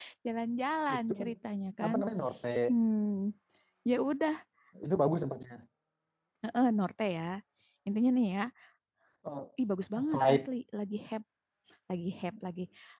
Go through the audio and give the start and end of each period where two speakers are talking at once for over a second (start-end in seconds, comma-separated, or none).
none